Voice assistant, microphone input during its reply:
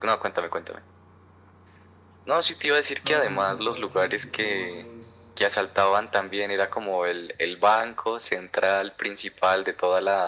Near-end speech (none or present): present